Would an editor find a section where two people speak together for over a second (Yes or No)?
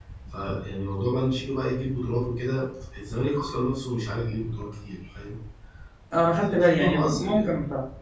Yes